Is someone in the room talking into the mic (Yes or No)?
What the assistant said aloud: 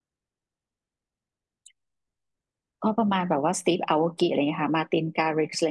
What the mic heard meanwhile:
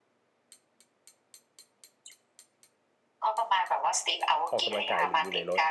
Yes